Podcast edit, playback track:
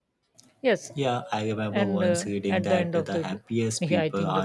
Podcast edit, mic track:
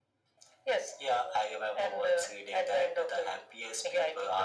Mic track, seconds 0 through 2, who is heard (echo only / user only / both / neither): echo only